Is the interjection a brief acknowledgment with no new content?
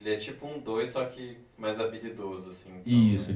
No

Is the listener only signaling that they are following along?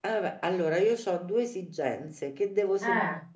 Yes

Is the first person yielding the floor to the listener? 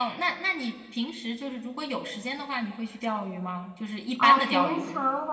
Yes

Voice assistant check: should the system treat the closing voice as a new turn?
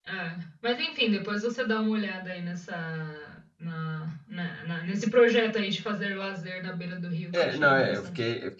Yes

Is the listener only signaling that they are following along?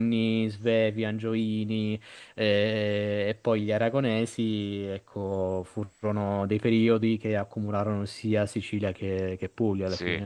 No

